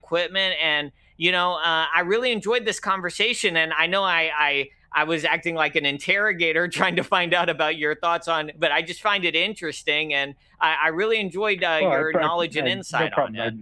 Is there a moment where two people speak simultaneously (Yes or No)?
Yes